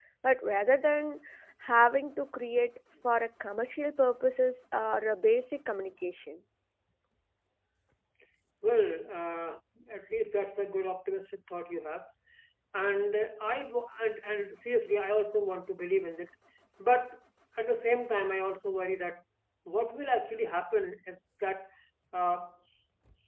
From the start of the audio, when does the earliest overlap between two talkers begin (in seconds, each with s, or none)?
none